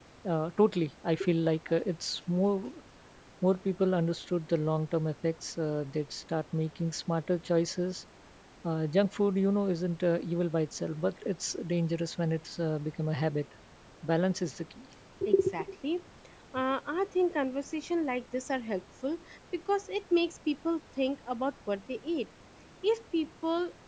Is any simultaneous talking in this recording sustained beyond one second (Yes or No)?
No